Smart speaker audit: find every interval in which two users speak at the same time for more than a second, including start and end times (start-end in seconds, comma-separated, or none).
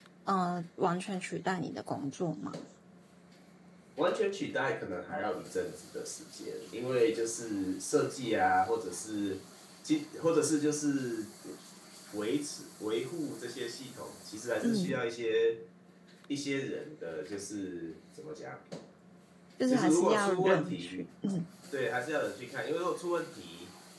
19.7-21.1